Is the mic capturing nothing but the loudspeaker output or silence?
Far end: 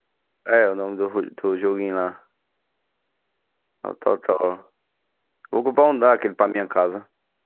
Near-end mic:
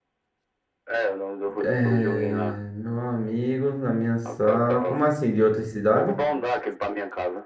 No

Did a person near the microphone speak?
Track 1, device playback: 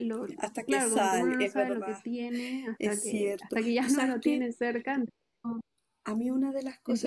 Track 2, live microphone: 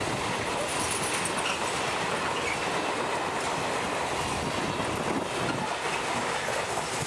No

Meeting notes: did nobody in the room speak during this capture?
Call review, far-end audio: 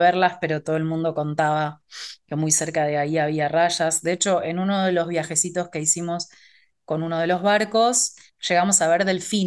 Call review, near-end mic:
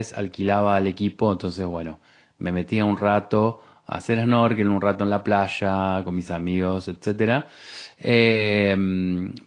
No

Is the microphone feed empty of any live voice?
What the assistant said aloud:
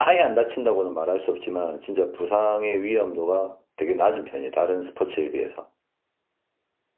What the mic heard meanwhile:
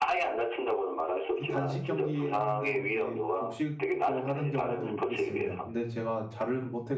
No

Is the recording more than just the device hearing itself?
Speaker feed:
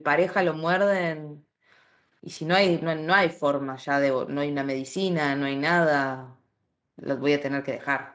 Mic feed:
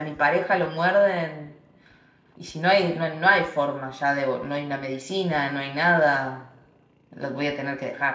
No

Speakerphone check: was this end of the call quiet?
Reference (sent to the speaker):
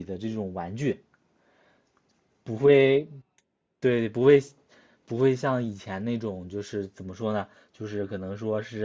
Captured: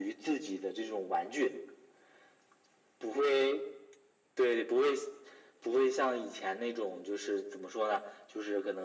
Yes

